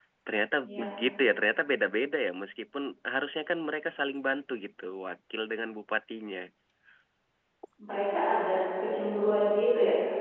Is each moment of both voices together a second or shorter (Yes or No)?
Yes